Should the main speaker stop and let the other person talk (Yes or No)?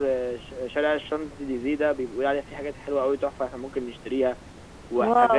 No